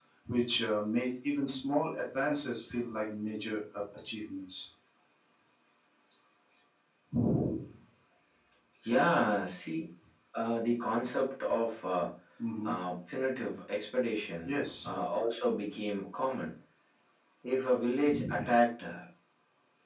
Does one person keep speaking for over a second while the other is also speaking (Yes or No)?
No